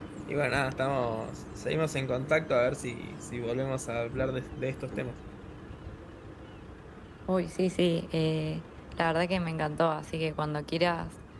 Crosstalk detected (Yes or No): No